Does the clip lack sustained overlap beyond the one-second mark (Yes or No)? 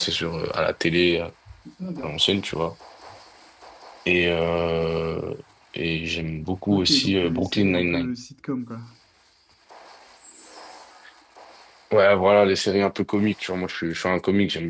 No